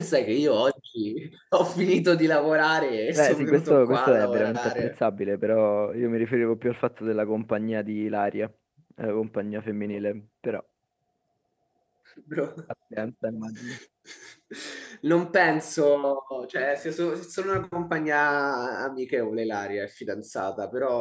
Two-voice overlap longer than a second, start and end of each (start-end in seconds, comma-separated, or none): 3.2-4.9